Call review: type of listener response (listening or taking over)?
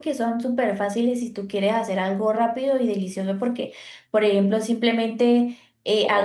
listening